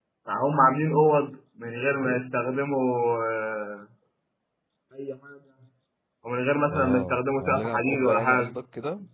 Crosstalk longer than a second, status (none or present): present